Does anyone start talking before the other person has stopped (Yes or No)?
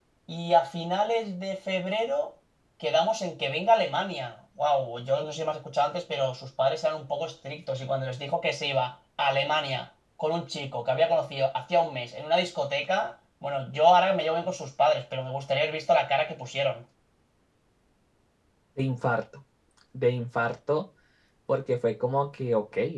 No